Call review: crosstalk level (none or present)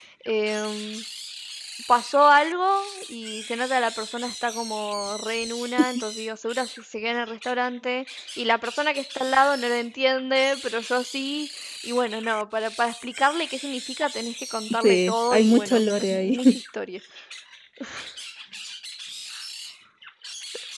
present